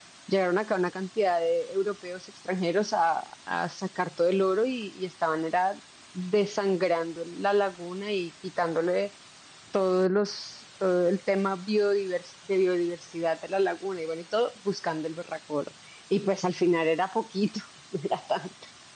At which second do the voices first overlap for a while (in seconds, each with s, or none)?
none